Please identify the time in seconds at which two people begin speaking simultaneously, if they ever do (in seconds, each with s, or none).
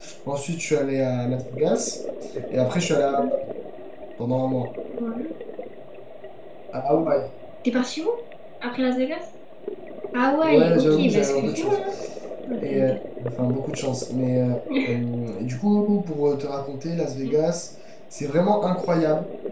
10.4 s